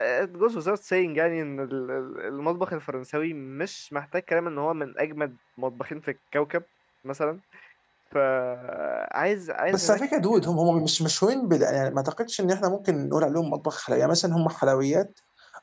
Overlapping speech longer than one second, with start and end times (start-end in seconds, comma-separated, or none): none